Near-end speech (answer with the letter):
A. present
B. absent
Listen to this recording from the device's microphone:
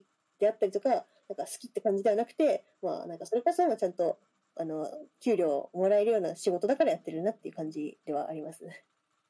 B